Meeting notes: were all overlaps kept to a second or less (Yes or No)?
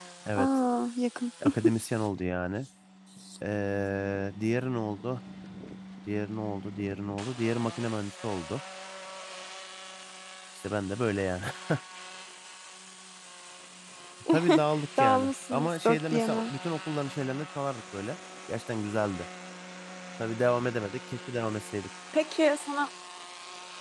No